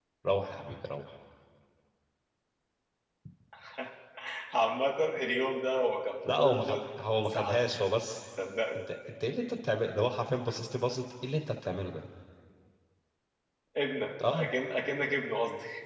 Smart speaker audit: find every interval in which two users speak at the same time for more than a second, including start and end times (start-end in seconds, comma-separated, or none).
none